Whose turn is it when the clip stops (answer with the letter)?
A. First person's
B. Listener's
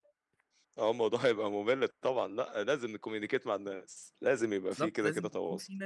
B